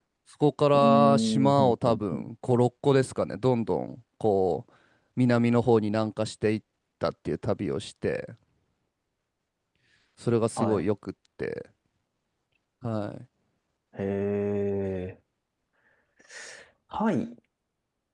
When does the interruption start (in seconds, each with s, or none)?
0.7 s